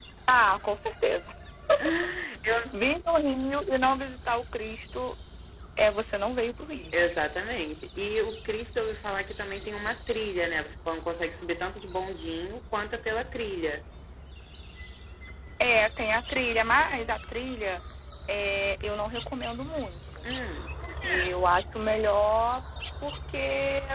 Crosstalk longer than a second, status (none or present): none